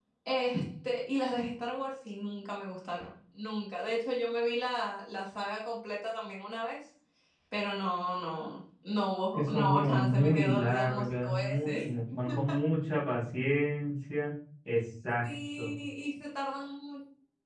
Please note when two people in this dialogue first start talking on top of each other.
9.3 s

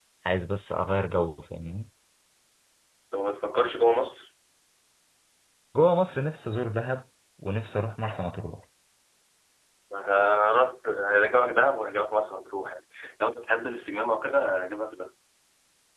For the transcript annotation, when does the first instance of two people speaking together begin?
none

